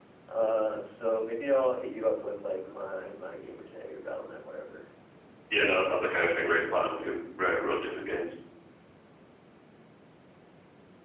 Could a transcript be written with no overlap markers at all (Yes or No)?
No